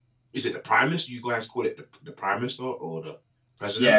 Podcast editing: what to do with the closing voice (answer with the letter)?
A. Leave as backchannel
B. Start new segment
B